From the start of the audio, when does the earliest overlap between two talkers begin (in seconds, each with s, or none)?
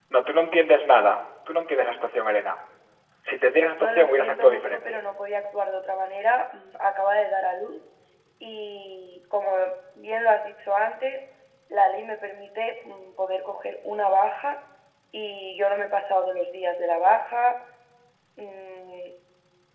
3.7 s